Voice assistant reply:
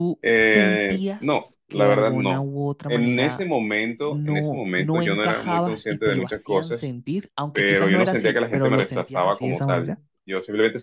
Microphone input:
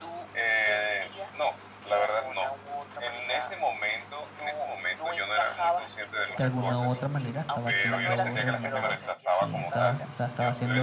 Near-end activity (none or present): present